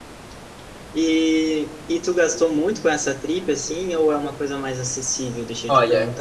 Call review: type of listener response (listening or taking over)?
taking over